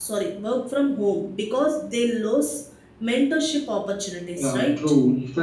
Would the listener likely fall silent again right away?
No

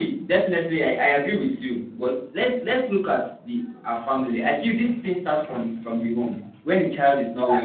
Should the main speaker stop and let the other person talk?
Yes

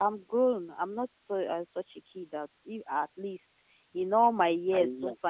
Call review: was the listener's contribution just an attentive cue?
Yes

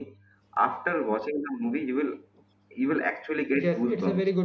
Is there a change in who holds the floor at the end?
Yes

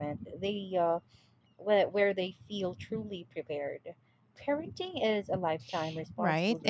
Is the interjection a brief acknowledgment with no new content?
No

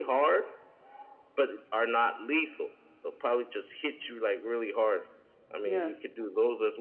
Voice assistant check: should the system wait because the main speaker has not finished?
Yes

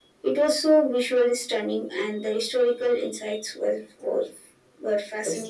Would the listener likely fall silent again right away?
No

